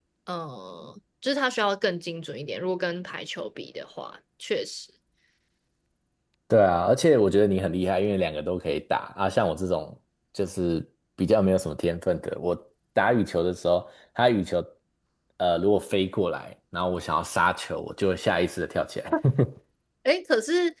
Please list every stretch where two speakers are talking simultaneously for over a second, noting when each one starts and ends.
none

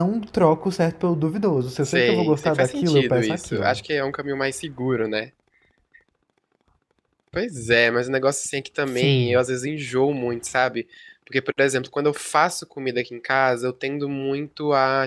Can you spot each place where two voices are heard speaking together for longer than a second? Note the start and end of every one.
1.8-3.8

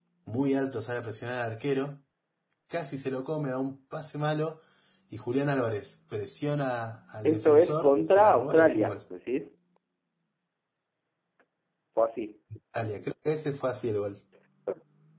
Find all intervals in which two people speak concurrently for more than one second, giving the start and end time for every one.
7.2-9.0

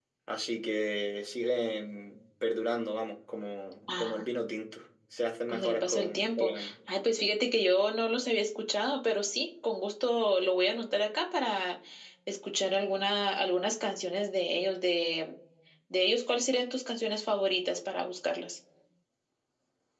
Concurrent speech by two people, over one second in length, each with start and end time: 5.5-6.7

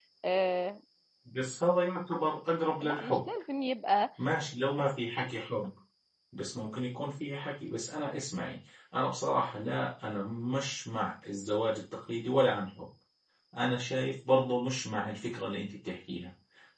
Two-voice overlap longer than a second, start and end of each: none

